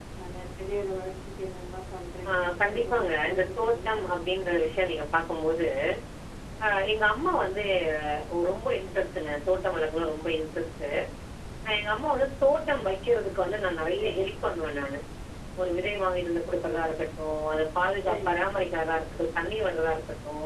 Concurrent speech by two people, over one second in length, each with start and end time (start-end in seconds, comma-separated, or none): 2.3-4.0